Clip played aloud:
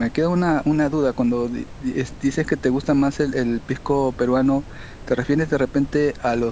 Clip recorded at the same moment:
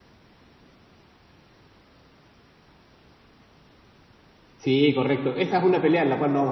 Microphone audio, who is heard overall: user only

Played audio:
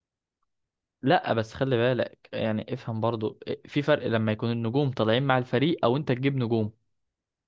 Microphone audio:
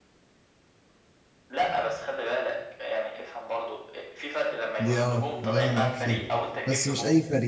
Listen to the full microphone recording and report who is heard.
both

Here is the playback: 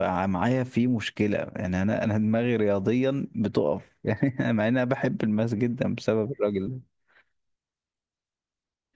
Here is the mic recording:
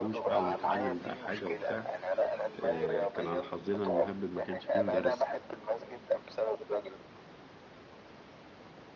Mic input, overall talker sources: both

